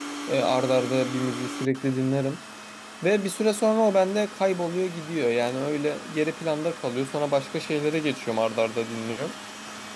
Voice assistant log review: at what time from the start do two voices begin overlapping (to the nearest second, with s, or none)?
none